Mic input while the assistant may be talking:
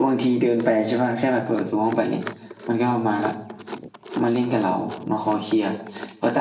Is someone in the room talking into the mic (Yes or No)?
Yes